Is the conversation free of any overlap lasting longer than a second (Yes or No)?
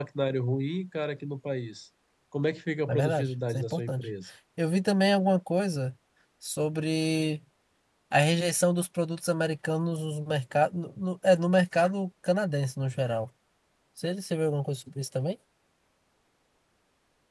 No